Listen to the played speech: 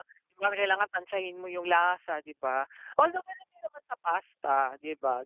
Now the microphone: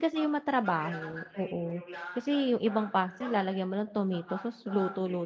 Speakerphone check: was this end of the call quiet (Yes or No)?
No